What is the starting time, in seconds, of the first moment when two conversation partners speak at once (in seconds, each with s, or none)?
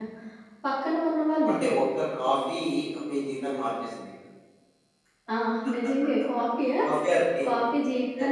none